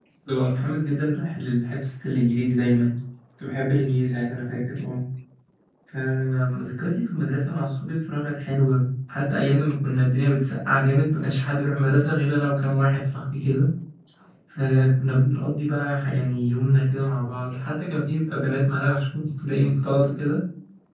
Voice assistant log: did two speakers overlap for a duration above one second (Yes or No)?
No